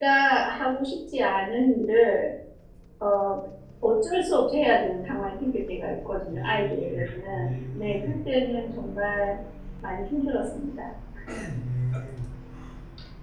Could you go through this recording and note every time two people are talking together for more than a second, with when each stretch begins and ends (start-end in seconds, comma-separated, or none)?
6.3-8.2